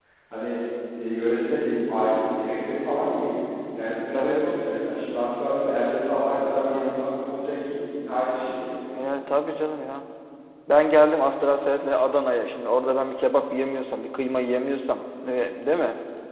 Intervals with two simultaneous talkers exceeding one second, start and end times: none

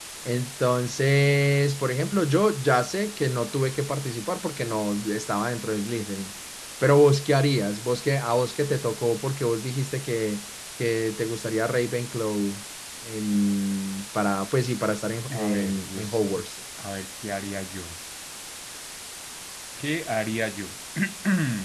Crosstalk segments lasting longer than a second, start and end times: 15.3-16.5

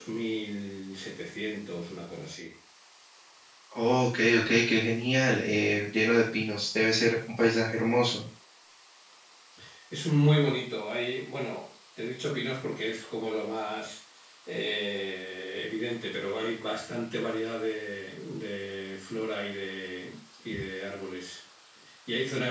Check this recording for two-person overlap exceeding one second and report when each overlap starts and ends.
none

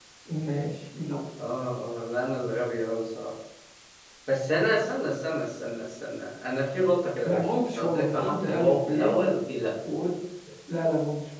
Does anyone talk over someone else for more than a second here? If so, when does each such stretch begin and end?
7.2-9.2

